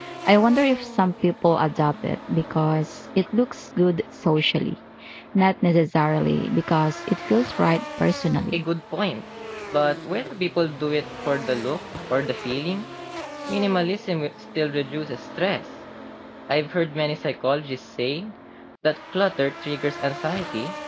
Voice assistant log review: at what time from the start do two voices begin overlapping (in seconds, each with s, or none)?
none